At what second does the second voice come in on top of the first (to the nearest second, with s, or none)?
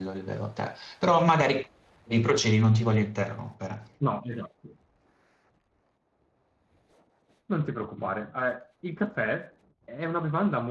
none